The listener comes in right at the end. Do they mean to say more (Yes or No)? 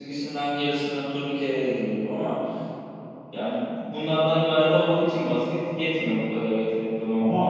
Yes